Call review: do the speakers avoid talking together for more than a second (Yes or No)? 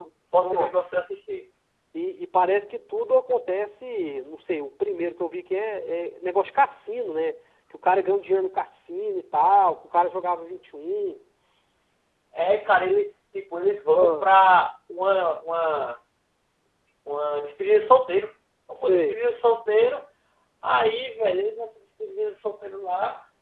Yes